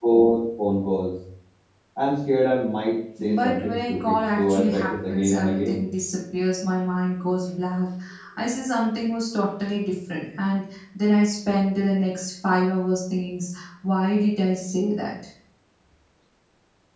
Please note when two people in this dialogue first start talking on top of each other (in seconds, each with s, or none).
3.2 s